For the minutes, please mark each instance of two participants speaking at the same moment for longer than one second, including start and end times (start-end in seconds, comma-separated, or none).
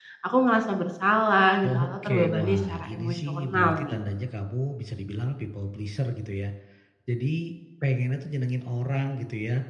1.6-4.0